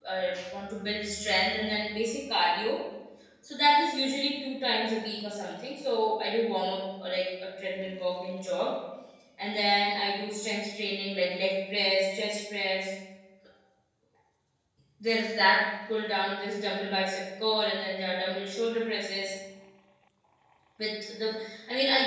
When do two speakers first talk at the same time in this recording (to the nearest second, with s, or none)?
none